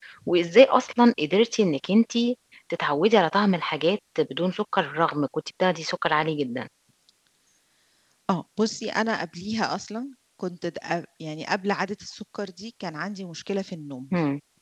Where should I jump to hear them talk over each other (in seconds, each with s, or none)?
none